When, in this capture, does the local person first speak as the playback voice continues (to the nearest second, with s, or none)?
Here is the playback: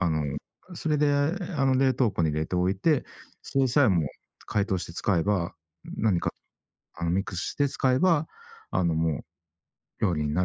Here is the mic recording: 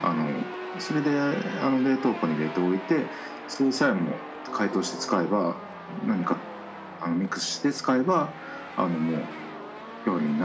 none